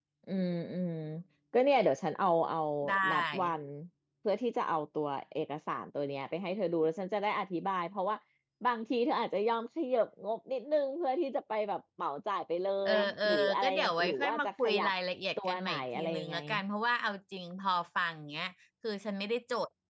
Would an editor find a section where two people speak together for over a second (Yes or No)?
Yes